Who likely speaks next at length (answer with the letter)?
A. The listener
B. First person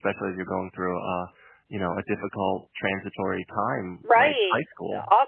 A